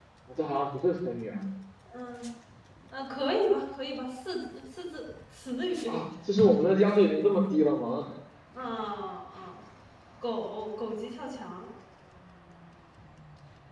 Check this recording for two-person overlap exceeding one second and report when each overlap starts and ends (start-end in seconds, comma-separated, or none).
none